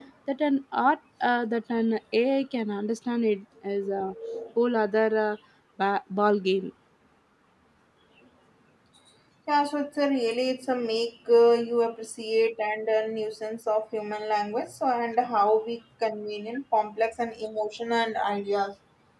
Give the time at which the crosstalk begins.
none

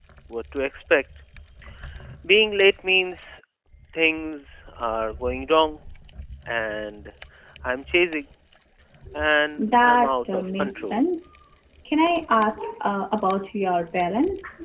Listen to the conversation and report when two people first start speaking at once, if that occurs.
9.6 s

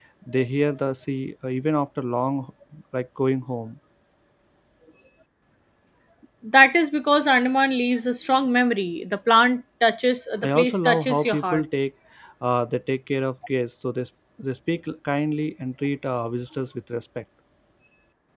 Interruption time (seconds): 10.3 s

